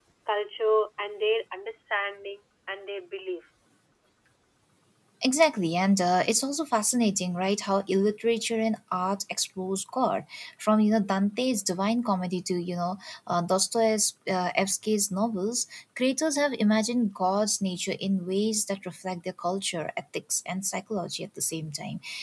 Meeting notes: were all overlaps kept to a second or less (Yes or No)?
Yes